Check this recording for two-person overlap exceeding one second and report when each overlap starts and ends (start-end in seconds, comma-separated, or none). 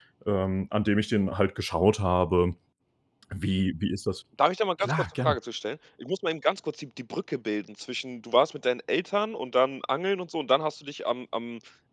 none